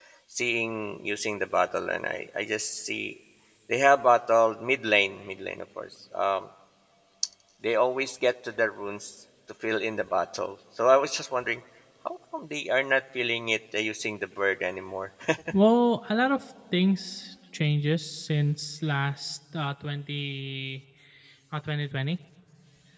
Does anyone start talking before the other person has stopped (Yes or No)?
No